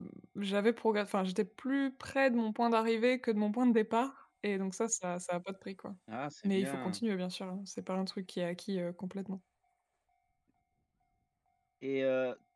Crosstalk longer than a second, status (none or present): none